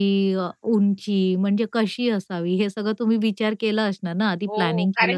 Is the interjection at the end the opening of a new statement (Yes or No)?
Yes